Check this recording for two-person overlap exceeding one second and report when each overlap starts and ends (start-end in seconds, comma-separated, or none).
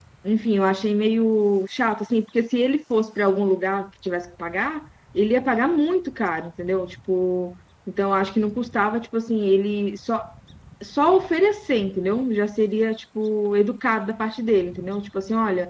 none